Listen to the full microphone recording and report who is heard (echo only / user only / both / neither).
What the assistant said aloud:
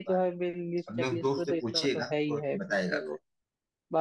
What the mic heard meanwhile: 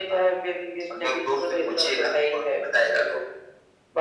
echo only